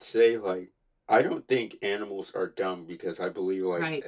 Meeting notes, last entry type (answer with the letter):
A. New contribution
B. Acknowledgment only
B